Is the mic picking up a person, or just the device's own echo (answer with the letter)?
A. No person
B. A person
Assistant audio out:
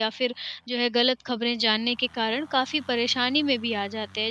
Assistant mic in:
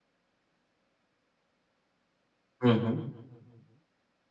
B